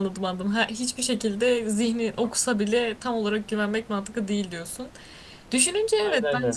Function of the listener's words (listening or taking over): listening